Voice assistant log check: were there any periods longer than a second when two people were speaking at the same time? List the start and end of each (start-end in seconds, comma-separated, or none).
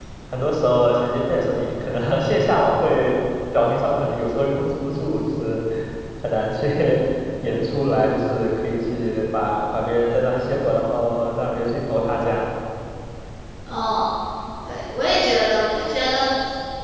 none